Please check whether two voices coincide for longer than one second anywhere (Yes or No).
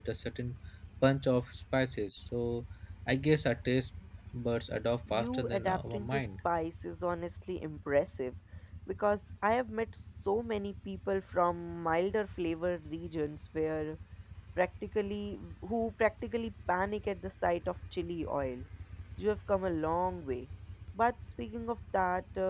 Yes